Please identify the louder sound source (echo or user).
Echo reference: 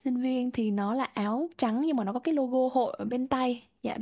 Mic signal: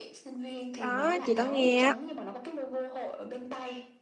user